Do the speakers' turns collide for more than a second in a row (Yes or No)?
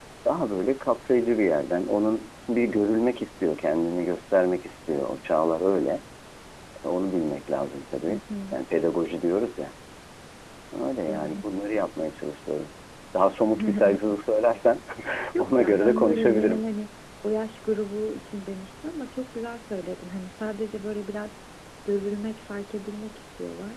Yes